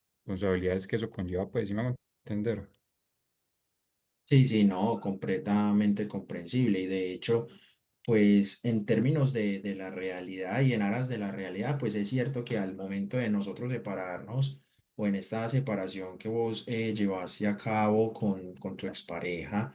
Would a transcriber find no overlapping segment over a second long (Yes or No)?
Yes